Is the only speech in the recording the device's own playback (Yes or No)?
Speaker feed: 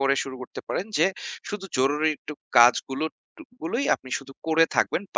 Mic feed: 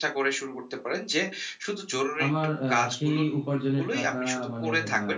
No